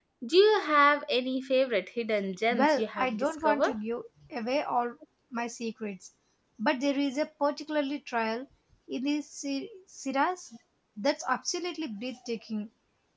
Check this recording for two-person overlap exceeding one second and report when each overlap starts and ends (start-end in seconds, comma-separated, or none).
2.5-3.8